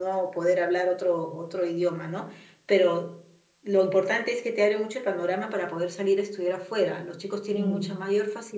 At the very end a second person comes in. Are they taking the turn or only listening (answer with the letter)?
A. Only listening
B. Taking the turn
A